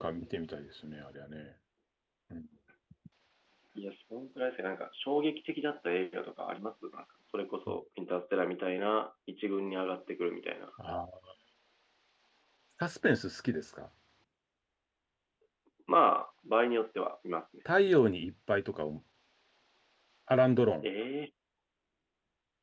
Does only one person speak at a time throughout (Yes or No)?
Yes